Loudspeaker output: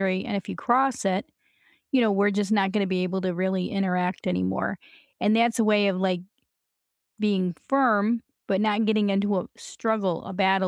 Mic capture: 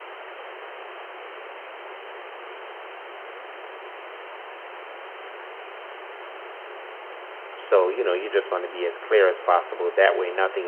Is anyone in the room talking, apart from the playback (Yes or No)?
Yes